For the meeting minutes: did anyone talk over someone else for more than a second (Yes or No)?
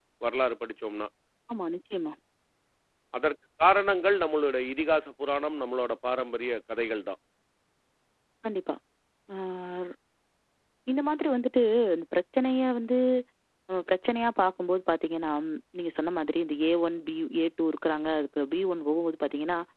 No